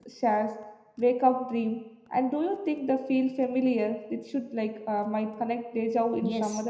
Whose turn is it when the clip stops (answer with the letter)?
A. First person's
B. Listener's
B